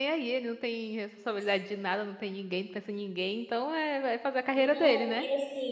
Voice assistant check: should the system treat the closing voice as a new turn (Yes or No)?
Yes